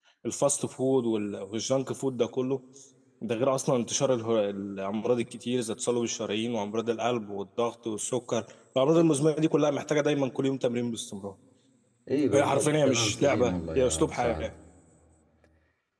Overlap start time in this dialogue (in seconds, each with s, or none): 12.3 s